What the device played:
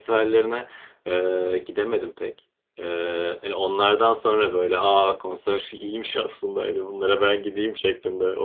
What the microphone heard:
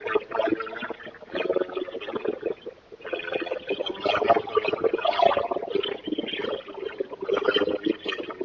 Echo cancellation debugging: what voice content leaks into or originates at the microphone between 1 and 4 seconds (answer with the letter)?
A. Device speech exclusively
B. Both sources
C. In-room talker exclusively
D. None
A